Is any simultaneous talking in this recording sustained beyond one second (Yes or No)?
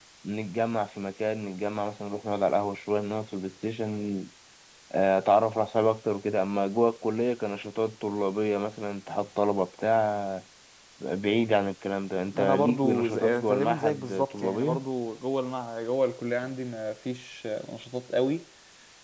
Yes